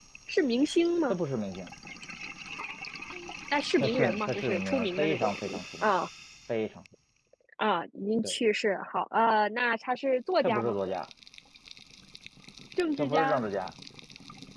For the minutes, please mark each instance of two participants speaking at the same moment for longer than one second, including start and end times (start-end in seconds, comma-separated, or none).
3.8-5.4